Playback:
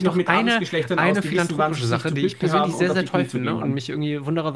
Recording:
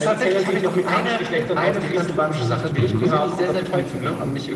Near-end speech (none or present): present